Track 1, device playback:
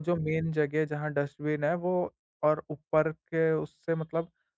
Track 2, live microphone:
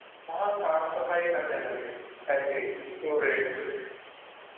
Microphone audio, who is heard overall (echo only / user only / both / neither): user only